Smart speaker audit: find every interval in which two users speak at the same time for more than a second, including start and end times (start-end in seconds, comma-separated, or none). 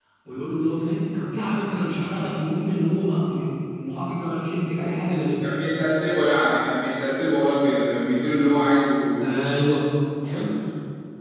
none